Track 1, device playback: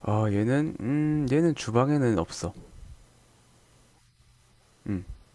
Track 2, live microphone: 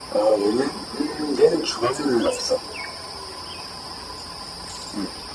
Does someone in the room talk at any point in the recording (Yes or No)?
No